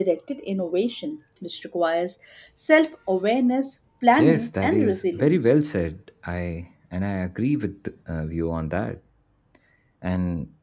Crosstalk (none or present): present